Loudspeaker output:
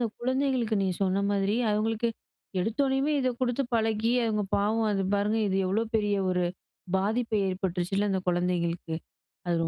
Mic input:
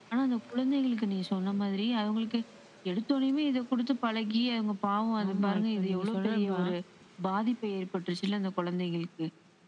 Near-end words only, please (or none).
ஆமா. இப்ப நீங்க சொன்னது தான்.